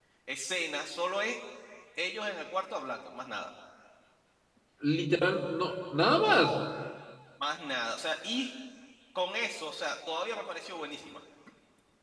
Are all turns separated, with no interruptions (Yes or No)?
Yes